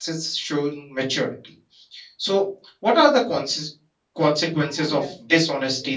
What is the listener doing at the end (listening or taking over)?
listening